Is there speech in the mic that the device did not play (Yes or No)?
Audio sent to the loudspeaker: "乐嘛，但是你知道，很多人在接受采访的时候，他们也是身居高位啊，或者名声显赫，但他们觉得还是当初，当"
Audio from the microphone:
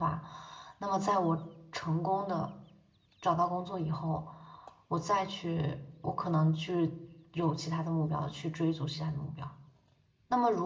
Yes